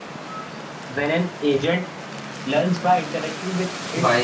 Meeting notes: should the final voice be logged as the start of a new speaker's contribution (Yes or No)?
Yes